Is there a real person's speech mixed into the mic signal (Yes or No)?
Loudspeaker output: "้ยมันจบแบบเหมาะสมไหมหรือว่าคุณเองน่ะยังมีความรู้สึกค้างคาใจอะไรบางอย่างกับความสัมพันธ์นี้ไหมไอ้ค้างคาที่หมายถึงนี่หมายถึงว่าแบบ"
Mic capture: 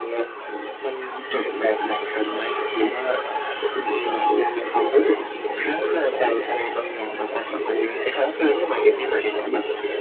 No